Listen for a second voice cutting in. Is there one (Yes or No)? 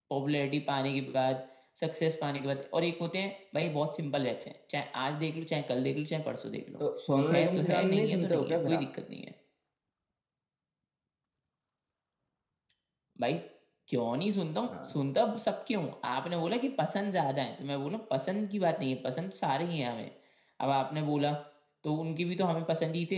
Yes